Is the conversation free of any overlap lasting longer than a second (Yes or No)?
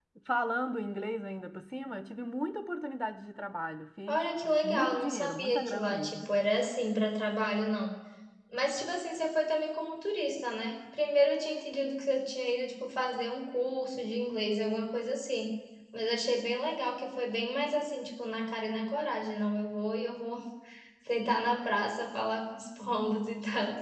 No